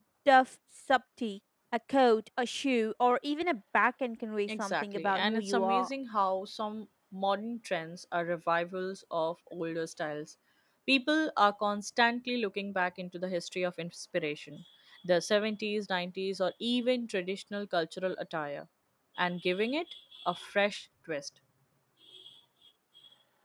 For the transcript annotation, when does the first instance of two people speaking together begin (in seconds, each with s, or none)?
4.5 s